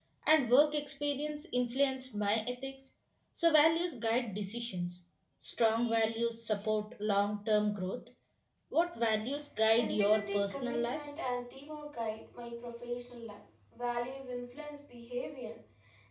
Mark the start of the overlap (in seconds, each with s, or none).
9.8 s